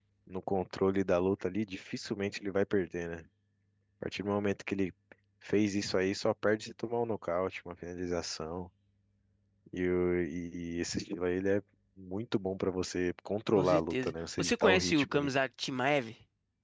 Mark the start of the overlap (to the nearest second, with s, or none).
14 s